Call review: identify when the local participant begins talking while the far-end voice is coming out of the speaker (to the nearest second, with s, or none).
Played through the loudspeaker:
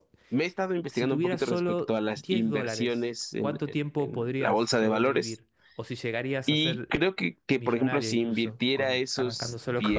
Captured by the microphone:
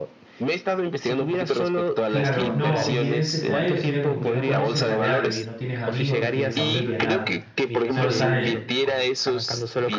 2 s